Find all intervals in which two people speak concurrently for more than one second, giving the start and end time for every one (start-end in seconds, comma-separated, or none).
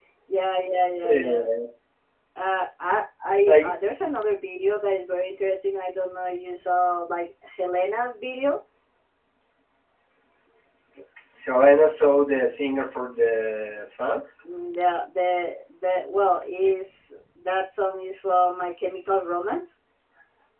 none